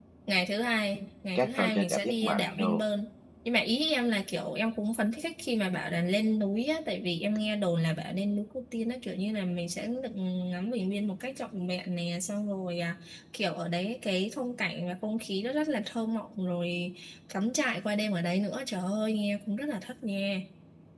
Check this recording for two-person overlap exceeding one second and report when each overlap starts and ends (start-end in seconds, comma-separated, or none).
1.4-2.8